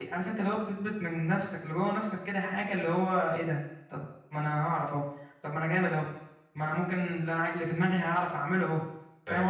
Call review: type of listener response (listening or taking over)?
taking over